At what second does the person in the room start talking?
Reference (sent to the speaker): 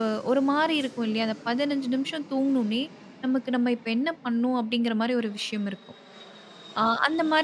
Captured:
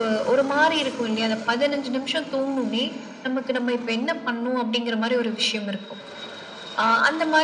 none

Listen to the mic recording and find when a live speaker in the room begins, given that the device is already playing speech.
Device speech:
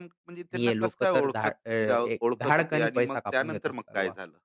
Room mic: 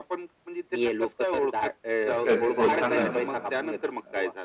2.1 s

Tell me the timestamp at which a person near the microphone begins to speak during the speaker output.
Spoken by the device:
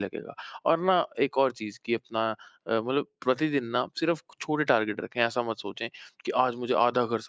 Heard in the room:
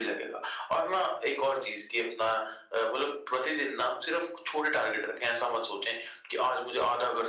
none

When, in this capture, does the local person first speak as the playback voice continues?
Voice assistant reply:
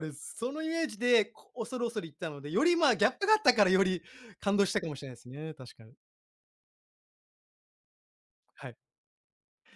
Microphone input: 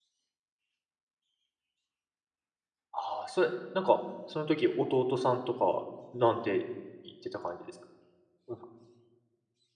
2.9 s

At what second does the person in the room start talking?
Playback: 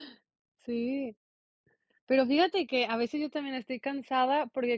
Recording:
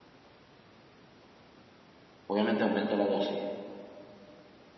2.2 s

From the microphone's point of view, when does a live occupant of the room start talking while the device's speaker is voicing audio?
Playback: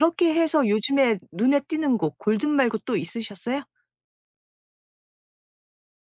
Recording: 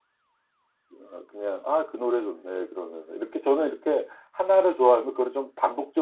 1.0 s

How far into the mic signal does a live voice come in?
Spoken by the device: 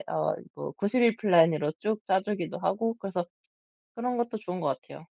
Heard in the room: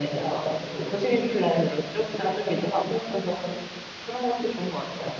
none

